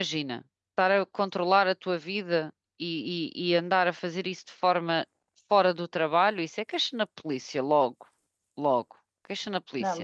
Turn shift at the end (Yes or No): Yes